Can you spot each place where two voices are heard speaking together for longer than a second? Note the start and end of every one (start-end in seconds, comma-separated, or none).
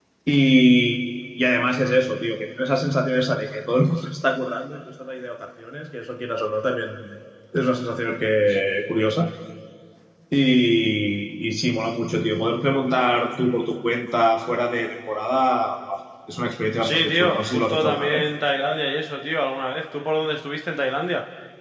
16.8-18.3